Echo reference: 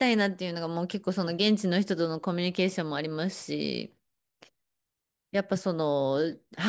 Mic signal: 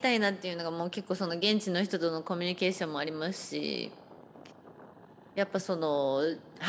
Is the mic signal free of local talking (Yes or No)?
Yes